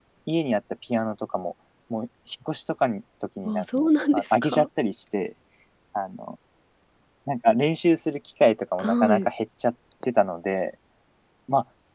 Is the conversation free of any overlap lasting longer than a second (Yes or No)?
No